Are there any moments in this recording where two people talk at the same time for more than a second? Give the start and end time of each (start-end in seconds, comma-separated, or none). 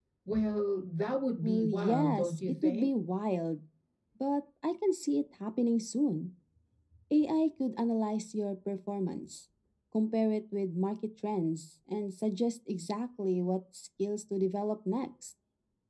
1.4-2.9